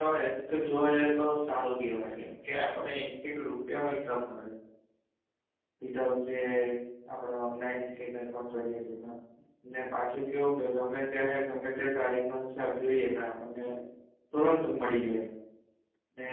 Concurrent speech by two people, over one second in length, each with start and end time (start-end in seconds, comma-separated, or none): none